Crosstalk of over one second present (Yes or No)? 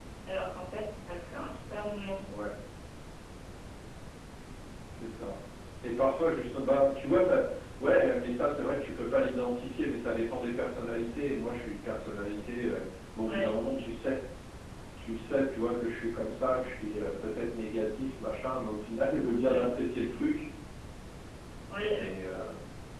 No